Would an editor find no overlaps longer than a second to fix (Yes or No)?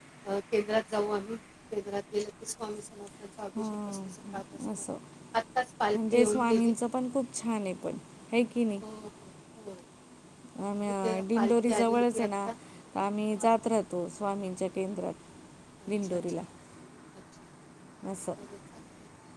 No